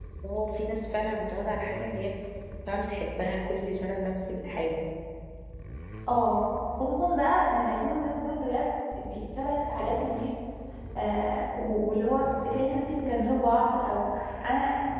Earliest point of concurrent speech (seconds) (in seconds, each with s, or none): none